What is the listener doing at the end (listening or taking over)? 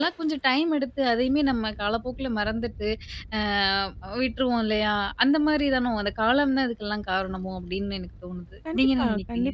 taking over